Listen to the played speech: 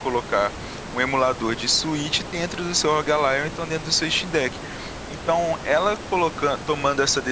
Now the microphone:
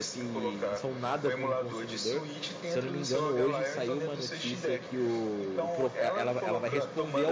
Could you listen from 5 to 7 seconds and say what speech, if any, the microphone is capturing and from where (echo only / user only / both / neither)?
both